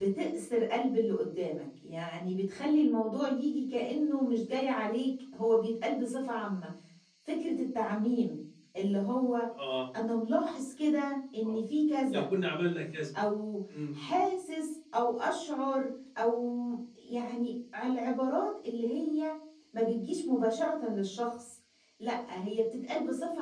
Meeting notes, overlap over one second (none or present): none